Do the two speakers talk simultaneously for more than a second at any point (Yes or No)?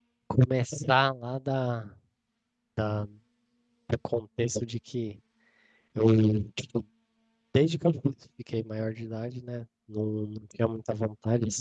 No